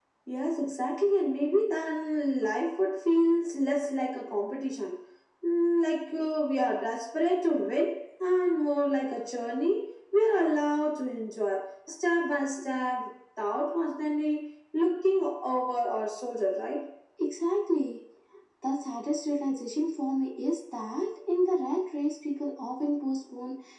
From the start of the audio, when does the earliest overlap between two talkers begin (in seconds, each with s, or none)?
none